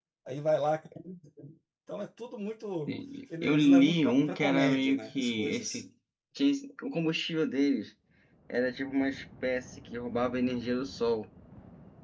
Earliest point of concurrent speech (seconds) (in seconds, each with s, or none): 3.4 s